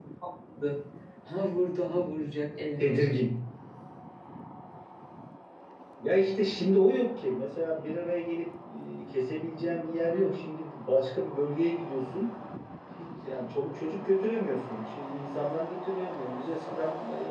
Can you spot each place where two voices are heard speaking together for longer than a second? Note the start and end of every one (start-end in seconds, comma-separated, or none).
none